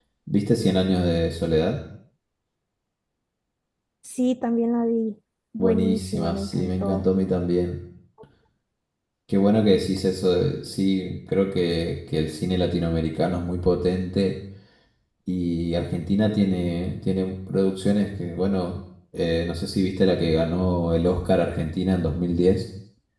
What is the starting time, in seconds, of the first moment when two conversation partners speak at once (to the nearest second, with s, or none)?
6 s